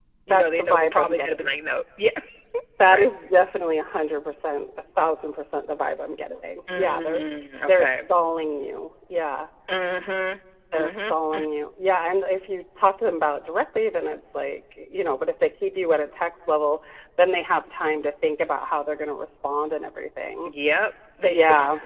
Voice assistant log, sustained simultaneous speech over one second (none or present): present